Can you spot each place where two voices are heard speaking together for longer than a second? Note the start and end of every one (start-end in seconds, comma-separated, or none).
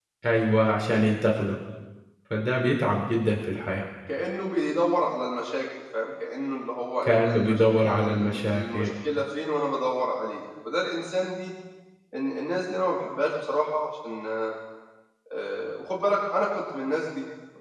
7.0-8.9